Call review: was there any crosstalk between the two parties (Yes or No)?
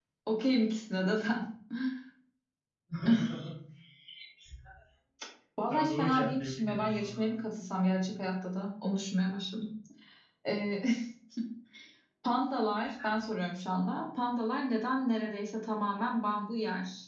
Yes